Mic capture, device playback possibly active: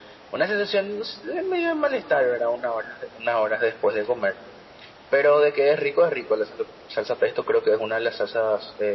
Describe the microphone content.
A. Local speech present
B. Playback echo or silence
B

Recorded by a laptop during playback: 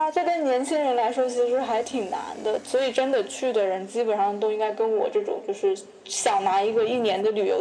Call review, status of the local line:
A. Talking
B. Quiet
B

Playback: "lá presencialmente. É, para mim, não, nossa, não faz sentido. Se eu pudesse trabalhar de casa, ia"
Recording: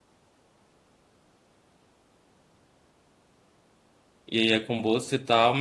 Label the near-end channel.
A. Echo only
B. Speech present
B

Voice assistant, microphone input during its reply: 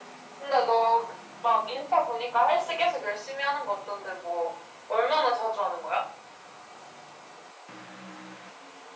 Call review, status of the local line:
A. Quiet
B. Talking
A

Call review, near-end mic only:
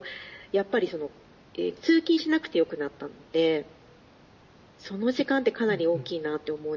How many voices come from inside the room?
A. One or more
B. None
A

